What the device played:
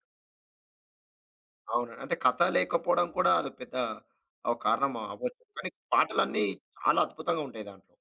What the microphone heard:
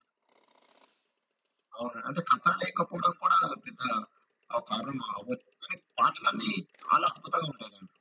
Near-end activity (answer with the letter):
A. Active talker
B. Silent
B